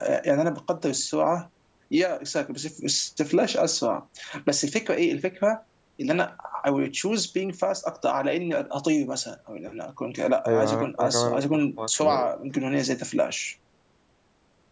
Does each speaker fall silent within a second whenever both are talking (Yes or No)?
No